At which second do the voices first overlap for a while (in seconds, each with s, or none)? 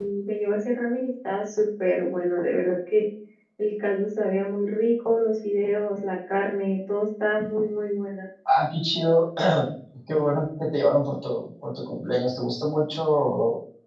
none